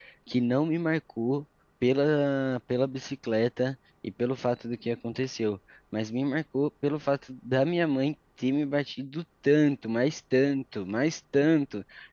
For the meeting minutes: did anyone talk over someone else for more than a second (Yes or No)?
No